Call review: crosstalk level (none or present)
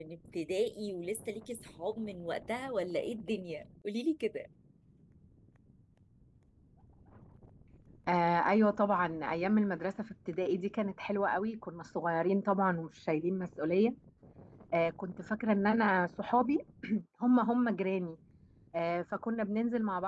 none